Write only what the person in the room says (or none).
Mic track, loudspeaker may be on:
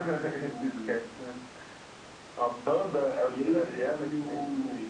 none